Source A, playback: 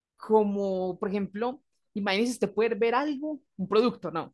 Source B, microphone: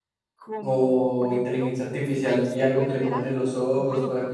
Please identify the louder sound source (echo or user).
user